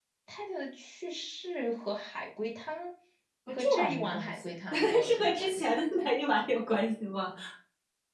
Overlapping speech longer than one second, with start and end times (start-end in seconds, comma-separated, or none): 3.5-5.8